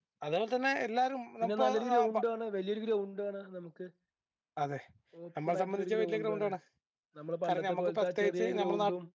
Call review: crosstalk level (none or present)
present